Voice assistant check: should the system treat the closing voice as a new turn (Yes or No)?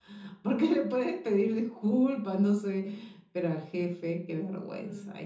Yes